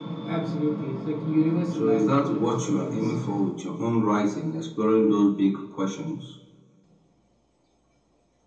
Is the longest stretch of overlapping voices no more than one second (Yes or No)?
No